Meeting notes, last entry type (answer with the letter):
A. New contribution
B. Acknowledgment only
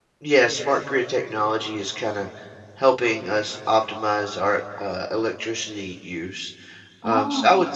B